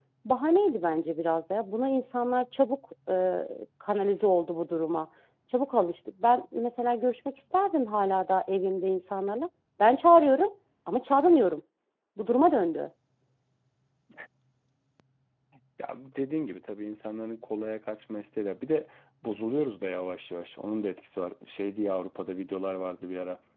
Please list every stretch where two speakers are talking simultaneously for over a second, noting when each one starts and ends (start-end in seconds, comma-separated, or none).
none